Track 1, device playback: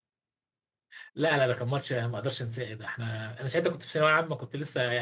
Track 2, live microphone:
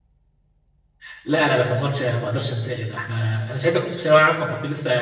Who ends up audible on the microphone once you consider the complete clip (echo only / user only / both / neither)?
echo only